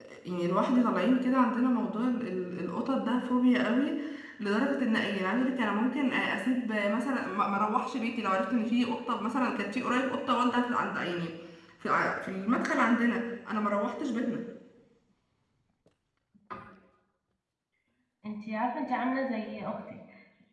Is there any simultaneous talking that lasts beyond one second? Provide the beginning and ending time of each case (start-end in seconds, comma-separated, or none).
none